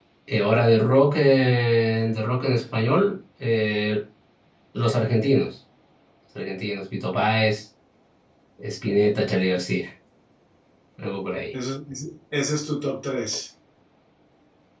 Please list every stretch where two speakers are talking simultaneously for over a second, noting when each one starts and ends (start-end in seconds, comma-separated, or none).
none